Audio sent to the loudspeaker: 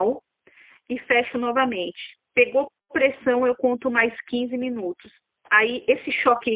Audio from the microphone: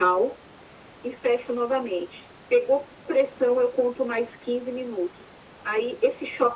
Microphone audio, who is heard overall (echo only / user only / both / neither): echo only